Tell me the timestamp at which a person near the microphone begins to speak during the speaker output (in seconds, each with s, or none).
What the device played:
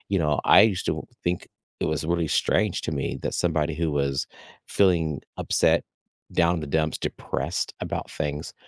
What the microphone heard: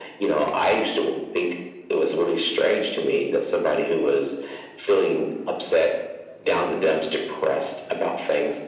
none